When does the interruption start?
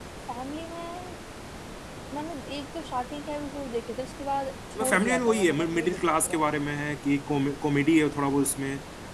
5 s

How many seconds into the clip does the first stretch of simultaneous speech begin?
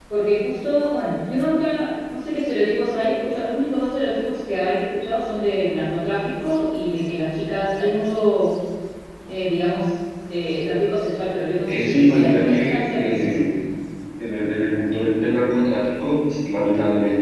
12 s

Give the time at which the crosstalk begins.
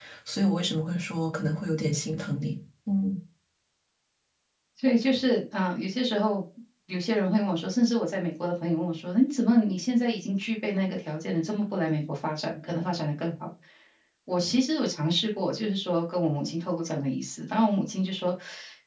none

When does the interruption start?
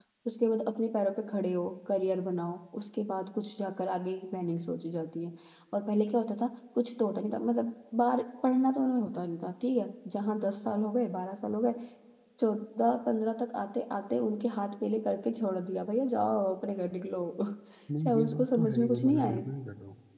18 s

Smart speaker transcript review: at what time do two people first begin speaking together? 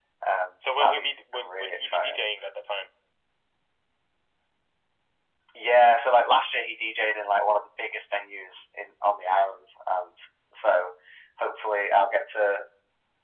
1 s

